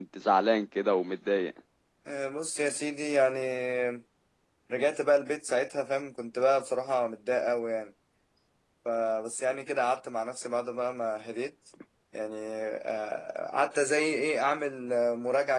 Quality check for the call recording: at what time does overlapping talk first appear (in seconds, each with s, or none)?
none